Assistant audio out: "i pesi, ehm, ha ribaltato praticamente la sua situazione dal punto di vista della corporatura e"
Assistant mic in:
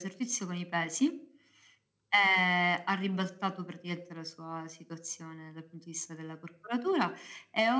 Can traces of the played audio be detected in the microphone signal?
Yes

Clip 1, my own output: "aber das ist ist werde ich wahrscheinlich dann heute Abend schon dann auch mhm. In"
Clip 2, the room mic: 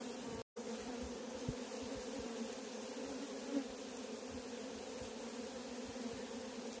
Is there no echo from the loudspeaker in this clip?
Yes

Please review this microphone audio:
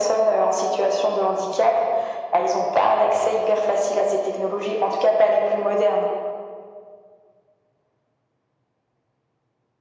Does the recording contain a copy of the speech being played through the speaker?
Yes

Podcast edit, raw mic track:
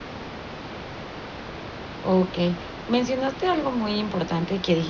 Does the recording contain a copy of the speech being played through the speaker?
No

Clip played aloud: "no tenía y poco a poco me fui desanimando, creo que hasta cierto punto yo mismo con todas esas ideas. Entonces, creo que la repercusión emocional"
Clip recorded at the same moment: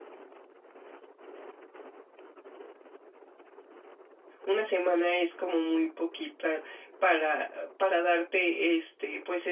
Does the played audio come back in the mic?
No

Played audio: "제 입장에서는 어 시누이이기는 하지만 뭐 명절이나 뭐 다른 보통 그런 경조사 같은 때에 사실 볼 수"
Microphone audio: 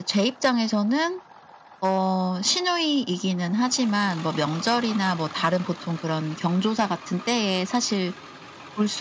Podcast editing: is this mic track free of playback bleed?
No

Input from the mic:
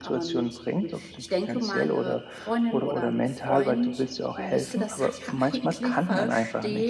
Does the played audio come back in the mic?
Yes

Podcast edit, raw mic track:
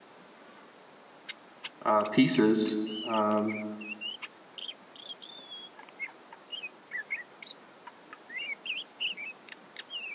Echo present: No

